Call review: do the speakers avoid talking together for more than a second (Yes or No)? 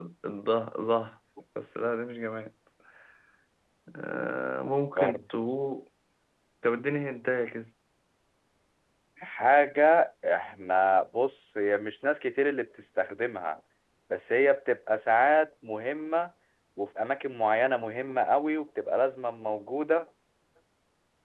Yes